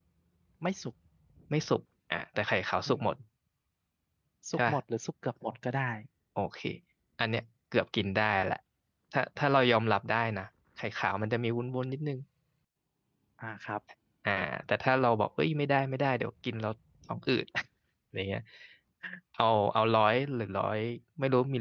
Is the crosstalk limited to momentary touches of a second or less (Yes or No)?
Yes